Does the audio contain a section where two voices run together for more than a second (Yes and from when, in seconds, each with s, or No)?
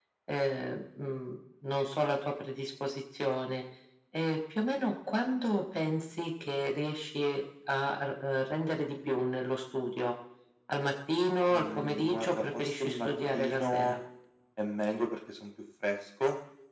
Yes, from 11.5 s